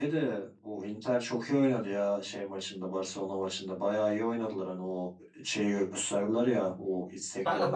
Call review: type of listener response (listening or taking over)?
taking over